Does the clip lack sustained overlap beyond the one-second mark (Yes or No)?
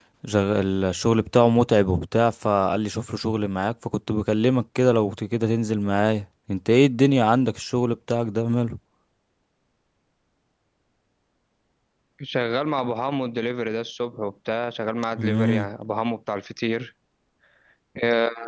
Yes